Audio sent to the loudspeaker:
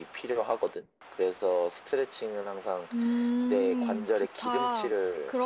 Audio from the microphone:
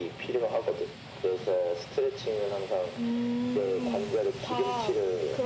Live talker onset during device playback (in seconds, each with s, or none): none